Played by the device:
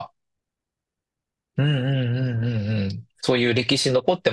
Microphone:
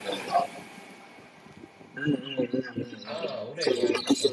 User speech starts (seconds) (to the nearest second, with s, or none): 3 s